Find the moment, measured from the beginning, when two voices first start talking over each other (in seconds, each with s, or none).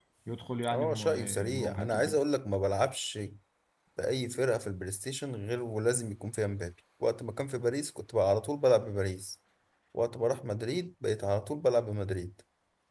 0.7 s